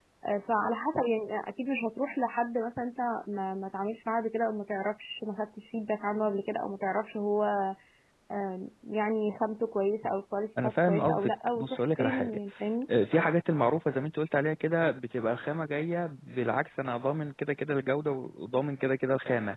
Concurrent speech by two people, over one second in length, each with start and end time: 10.6-12.4

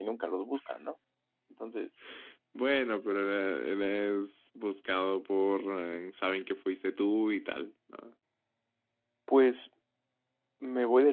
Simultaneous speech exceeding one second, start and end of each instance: none

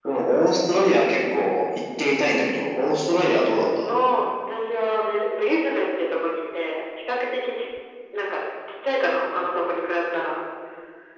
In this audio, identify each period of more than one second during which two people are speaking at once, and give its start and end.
none

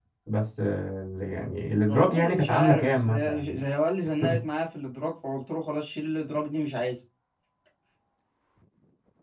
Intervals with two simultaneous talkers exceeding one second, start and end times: 1.9-3.6

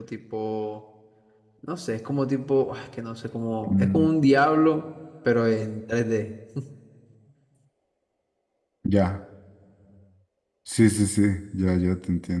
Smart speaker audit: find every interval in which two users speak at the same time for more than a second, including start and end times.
none

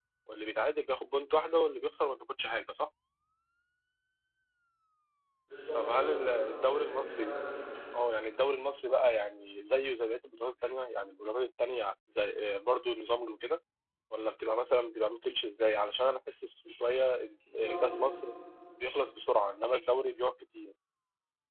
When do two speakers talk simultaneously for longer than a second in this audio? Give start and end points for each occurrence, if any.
5.8-7.3

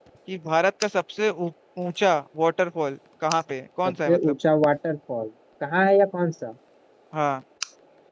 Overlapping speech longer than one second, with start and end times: none

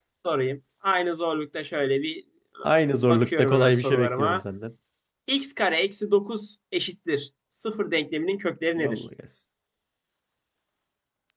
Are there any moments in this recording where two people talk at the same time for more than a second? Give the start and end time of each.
3.1-4.4

